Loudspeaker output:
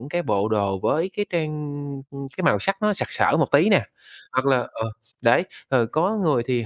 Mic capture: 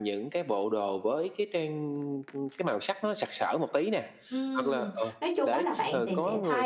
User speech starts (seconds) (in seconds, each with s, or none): 4.3 s